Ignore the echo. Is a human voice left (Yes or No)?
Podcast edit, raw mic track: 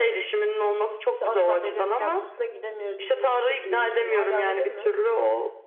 Yes